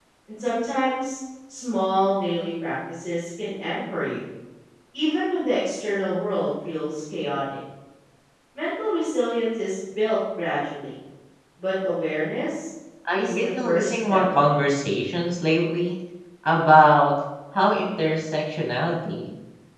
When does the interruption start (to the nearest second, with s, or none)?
13 s